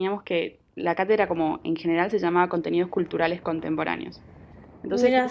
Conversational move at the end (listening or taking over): listening